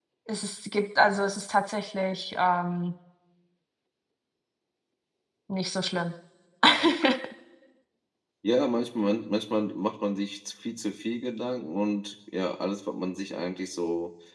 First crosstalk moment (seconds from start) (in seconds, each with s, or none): none